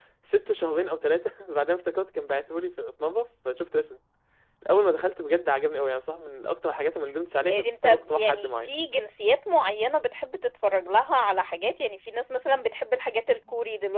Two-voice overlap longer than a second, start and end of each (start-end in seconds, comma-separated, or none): 7.5-8.7